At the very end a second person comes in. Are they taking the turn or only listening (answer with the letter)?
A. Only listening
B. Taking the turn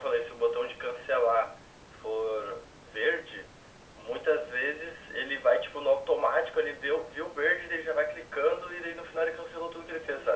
B